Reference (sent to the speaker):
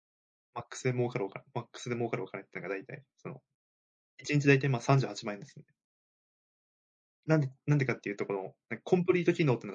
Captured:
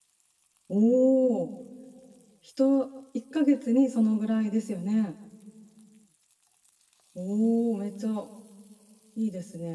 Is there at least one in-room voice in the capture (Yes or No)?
Yes